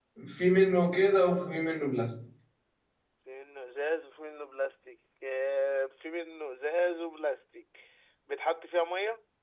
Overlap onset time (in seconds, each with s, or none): none